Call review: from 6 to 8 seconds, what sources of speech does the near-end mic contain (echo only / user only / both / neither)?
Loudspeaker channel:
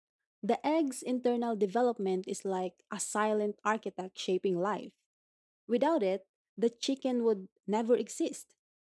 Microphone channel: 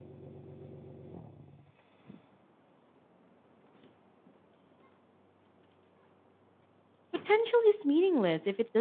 user only